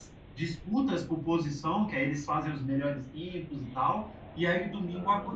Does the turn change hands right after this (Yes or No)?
No